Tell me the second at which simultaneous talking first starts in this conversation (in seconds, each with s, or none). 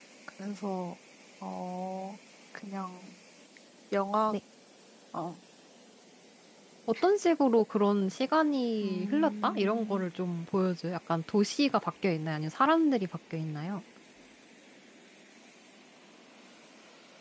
8.8 s